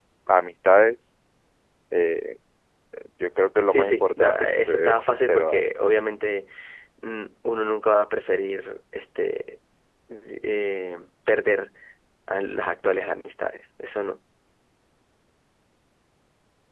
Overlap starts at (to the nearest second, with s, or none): 4 s